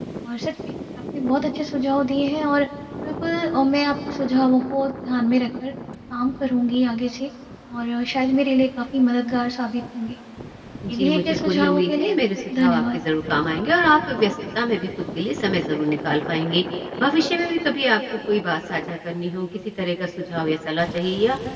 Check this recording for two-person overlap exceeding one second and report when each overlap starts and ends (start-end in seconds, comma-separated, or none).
10.9-12.1